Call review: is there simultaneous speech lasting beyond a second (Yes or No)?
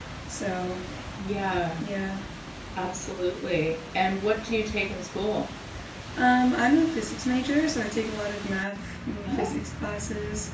No